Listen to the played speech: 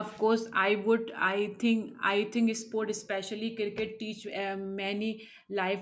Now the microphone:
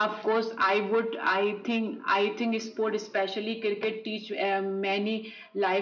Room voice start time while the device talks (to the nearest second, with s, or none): none